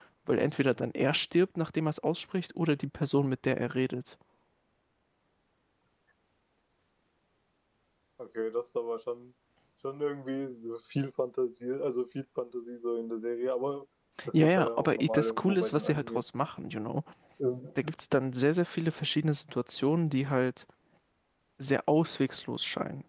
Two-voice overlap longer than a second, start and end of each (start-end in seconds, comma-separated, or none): 14.3-16.2